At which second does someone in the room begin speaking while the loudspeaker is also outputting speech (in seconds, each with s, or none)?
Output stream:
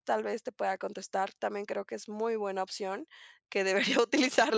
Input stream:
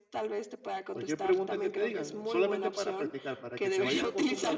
0.9 s